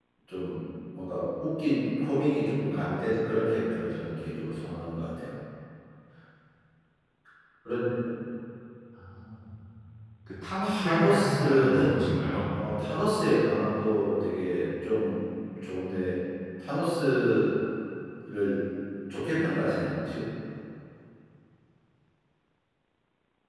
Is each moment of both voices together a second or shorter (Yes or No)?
No